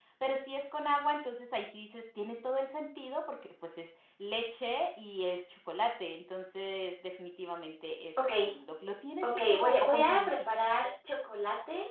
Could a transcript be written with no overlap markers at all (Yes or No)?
No